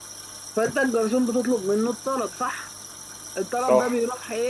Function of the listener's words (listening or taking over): listening